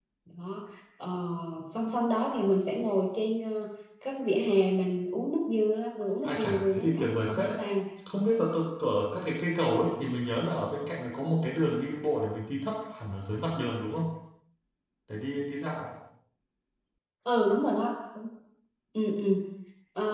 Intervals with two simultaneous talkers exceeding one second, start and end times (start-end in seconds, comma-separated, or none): 6.2-7.6